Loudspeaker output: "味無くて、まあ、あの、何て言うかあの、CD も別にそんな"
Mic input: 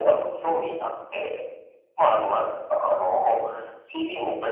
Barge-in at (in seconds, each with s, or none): none